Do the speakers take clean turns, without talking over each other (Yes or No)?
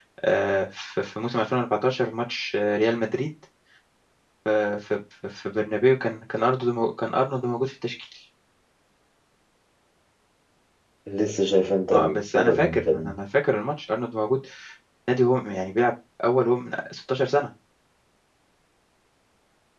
No